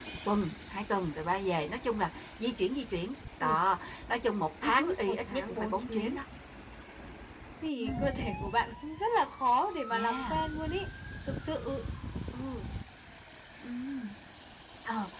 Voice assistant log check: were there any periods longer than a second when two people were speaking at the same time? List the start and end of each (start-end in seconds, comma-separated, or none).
4.6-6.2